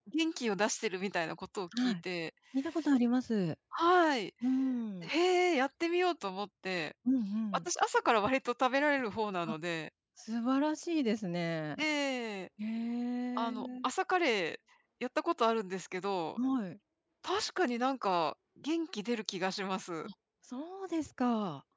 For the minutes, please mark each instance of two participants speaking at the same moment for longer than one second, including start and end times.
none

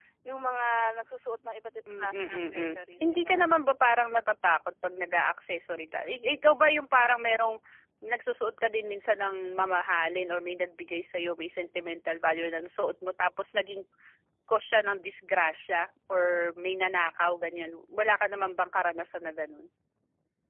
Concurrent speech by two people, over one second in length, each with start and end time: 1.9-3.5

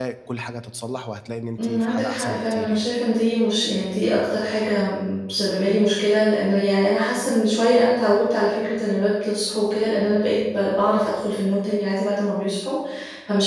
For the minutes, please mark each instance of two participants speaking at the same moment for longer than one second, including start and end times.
1.6-2.9

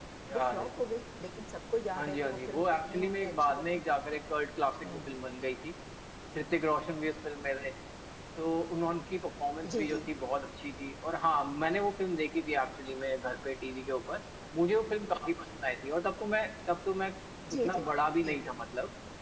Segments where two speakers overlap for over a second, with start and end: 2.0-3.8

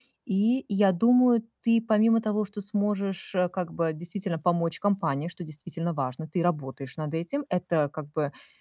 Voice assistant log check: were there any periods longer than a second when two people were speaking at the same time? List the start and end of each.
none

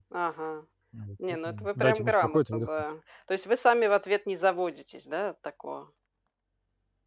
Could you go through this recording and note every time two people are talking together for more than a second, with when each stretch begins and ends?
1.5-2.7

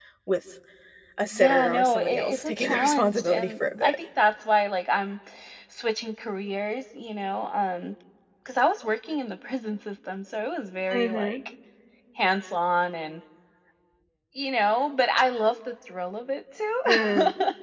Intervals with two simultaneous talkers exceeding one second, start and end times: 1.3-3.9

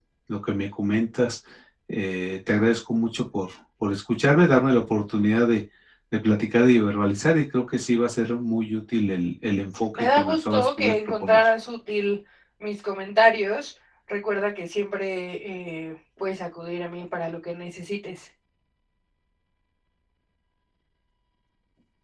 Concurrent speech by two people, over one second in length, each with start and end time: 9.9-11.4

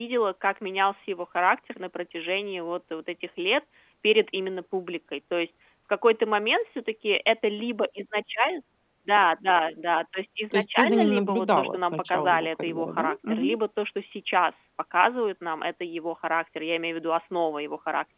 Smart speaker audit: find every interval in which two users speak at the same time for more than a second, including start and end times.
10.5-13.6

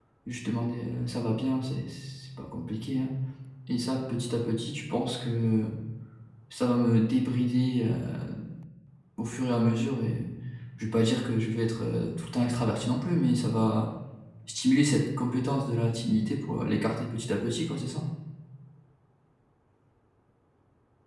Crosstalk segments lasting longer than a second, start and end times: none

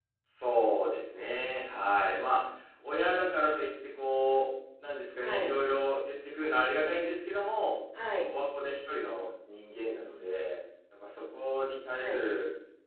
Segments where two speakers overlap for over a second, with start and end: none

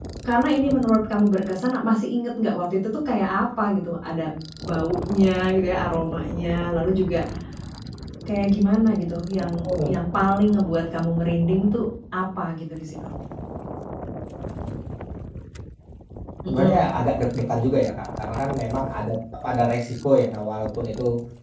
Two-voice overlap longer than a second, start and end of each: none

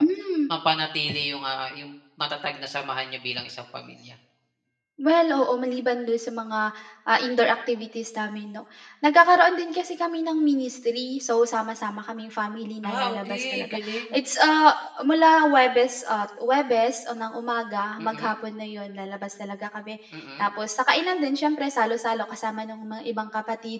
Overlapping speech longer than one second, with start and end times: 12.8-14.2

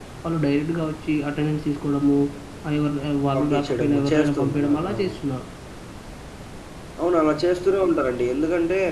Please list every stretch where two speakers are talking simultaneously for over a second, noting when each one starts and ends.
3.4-5.2

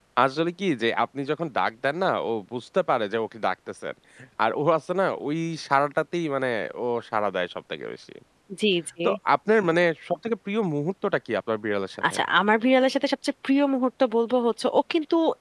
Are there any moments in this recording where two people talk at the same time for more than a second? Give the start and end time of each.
none

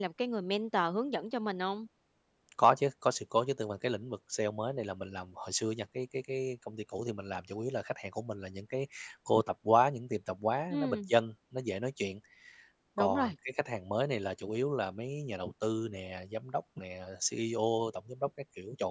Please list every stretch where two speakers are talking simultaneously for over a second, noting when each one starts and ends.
none

